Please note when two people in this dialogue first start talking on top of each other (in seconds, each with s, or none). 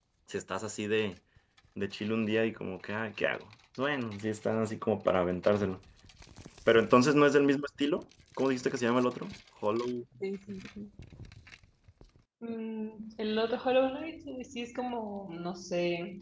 none